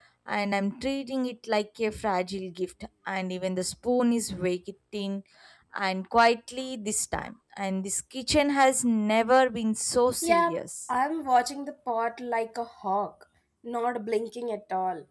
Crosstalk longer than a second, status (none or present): none